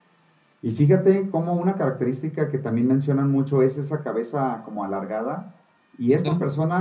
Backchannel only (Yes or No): Yes